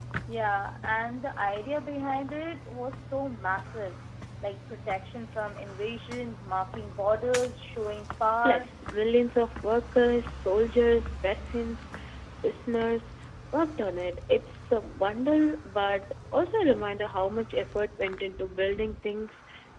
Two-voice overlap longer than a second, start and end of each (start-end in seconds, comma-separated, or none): none